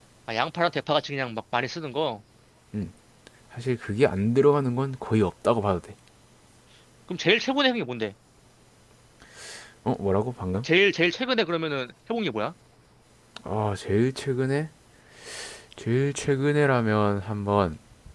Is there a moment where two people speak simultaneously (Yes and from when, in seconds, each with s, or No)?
No